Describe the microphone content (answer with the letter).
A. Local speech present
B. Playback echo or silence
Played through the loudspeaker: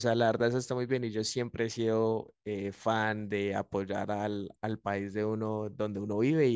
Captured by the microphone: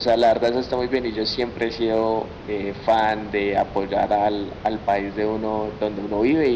B